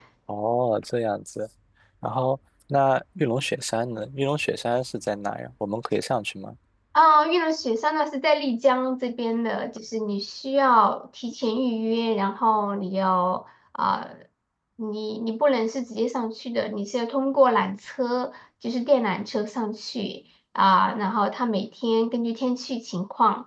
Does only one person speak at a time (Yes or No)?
Yes